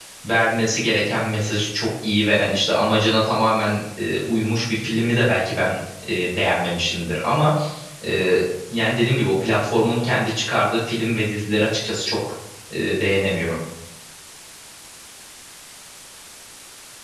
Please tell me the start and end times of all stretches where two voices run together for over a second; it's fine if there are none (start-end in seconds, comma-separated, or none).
none